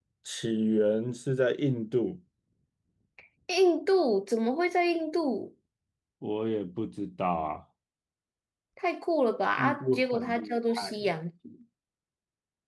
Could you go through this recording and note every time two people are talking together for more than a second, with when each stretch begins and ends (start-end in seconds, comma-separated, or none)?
9.6-11.1